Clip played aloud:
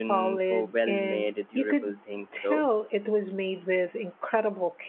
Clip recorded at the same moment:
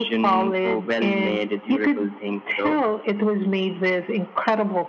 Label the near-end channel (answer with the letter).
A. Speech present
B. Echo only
B